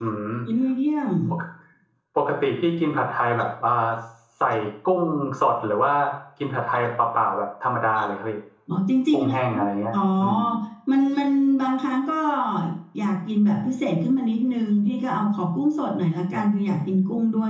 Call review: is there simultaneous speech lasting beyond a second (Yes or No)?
No